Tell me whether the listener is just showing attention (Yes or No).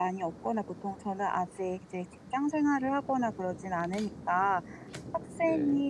Yes